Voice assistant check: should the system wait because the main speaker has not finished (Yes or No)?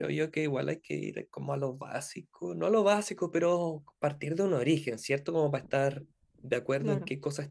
Yes